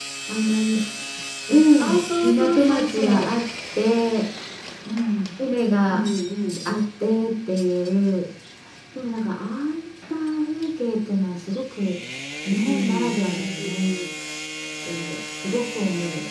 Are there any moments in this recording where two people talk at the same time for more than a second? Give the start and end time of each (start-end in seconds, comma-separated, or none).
1.8-3.4, 12.5-13.9